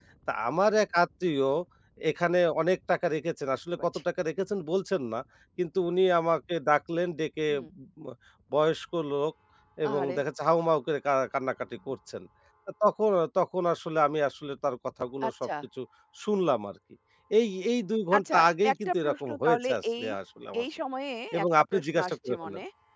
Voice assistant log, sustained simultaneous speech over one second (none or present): present